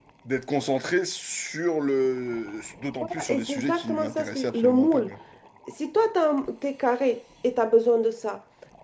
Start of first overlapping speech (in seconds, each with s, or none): 3.3 s